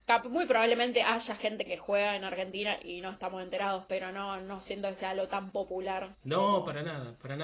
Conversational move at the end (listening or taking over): taking over